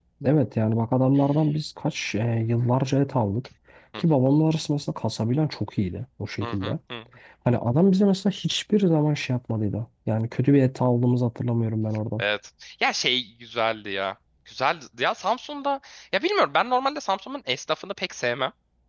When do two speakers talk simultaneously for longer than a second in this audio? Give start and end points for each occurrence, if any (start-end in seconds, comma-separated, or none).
none